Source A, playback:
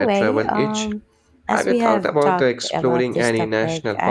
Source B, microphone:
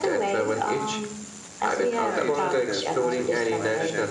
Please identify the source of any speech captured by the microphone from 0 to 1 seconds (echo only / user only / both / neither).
echo only